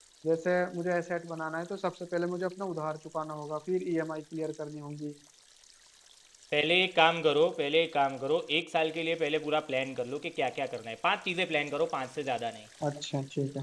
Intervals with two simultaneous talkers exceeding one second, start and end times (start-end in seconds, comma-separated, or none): none